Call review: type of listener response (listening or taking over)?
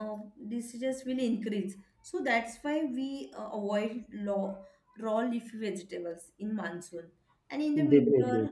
listening